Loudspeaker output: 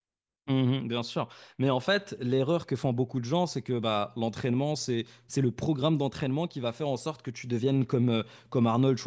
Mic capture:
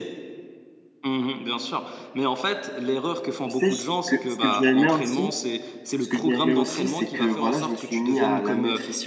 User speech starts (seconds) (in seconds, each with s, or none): 3.4 s